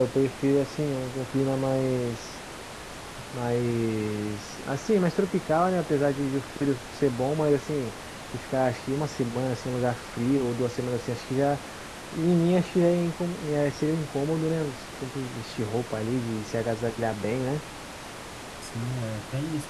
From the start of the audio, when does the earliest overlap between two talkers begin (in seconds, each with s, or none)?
none